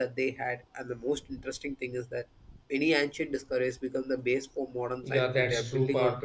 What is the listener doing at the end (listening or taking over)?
taking over